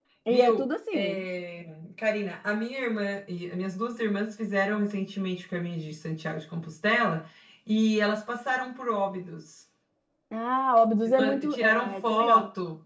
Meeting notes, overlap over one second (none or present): present